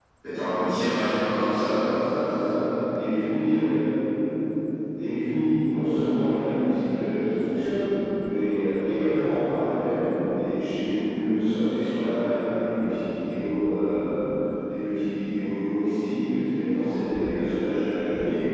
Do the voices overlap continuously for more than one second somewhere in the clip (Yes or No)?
No